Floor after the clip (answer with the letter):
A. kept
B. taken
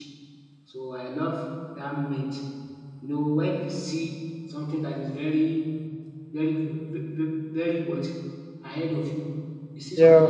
A